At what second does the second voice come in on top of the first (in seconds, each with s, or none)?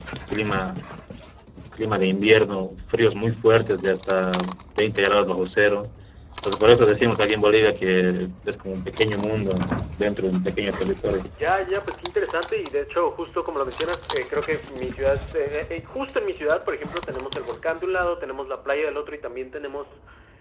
none